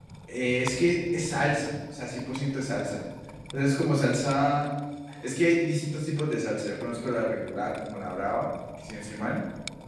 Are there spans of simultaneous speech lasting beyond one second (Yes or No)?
No